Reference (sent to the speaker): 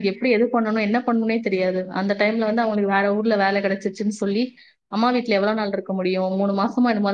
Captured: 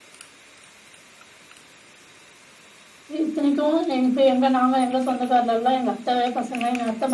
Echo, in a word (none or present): none